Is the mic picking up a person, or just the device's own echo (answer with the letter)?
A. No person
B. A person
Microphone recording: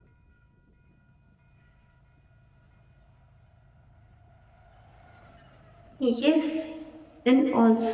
B